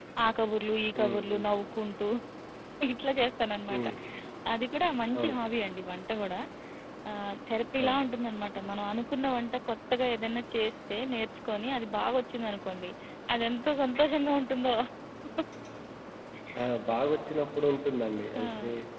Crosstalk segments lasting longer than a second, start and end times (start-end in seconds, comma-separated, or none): none